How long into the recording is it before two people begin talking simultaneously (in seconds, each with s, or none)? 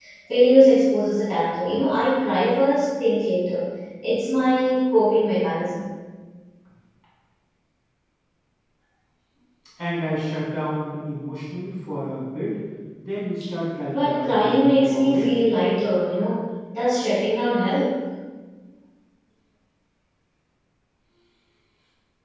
13.9 s